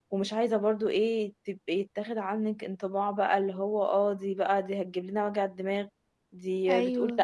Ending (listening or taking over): listening